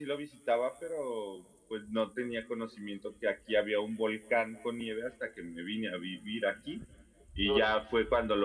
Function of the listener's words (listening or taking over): listening